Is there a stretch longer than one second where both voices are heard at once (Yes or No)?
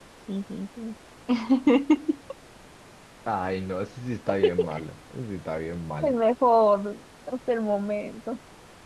No